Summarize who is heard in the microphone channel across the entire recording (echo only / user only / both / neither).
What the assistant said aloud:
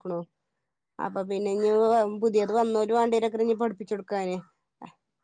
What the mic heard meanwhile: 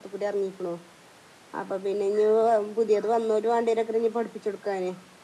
echo only